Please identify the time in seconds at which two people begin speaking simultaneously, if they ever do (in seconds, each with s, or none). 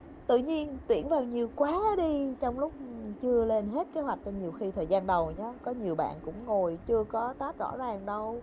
none